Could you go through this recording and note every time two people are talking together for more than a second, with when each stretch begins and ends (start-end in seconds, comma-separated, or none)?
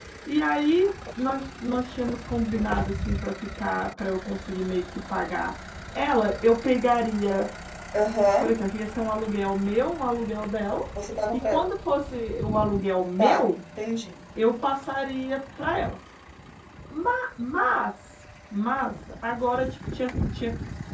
none